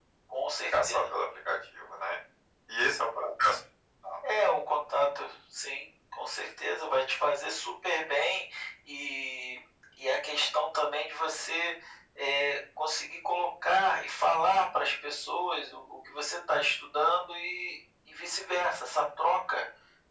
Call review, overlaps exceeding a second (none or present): none